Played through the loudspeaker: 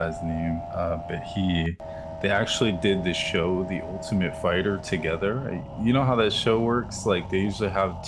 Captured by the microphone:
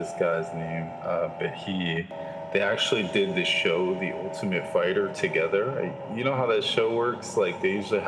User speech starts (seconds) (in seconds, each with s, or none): none